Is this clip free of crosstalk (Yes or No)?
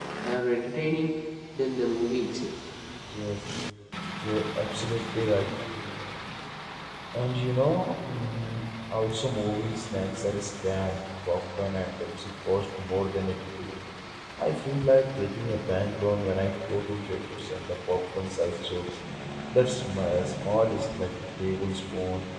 Yes